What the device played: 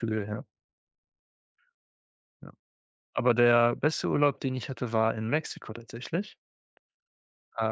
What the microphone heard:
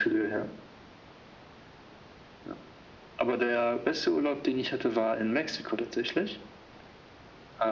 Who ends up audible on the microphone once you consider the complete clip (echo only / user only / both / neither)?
echo only